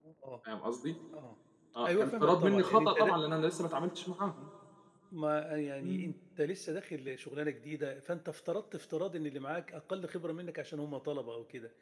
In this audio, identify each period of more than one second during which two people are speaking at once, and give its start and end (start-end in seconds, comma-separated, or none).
1.9-3.1